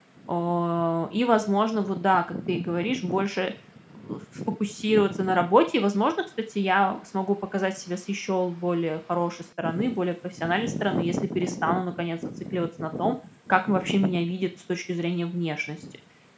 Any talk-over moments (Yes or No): No